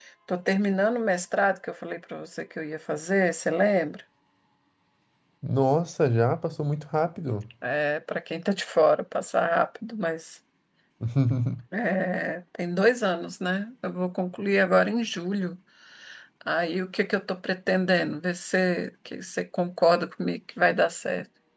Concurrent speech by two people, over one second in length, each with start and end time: none

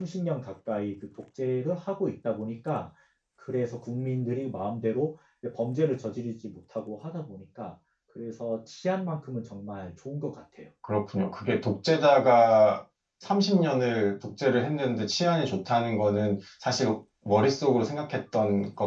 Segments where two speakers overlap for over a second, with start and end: none

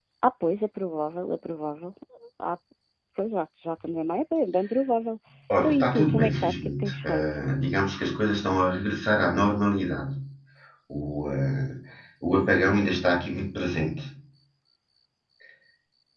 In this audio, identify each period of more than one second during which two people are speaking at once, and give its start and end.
5.6-7.2

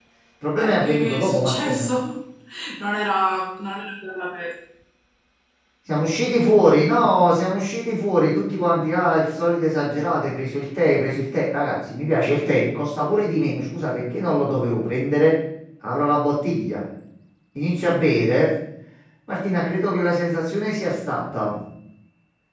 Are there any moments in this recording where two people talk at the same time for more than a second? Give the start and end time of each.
0.6-1.8

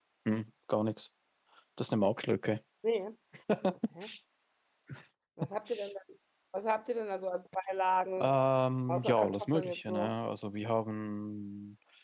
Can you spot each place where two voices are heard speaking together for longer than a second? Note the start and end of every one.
8.9-10.1

